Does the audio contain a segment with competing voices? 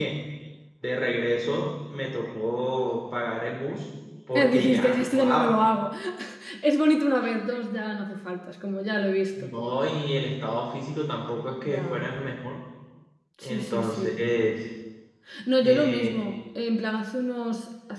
Yes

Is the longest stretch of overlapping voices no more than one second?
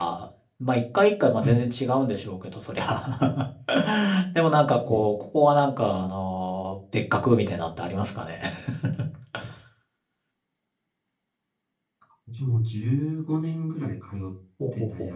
Yes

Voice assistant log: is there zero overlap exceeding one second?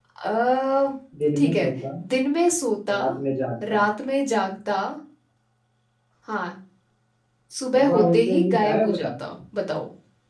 No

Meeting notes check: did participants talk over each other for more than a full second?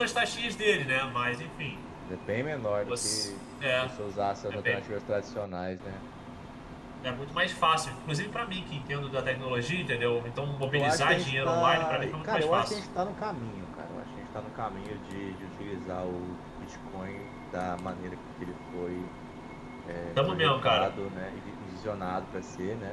Yes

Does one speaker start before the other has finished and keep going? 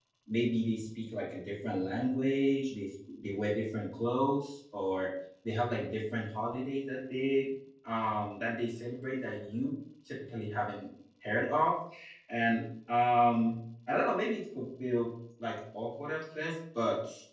No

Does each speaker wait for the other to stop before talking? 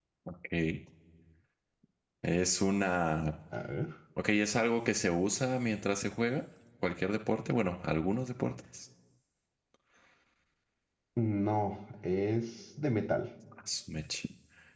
Yes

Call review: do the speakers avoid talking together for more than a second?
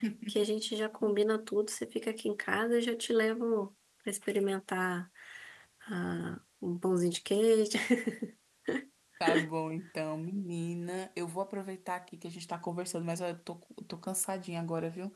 Yes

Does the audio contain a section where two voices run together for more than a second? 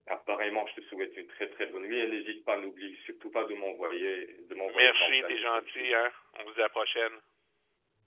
Yes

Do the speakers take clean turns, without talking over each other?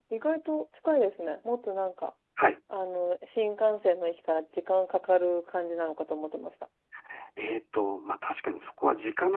Yes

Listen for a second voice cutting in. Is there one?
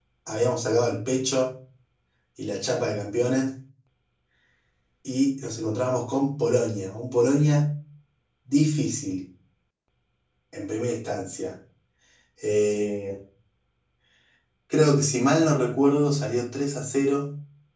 No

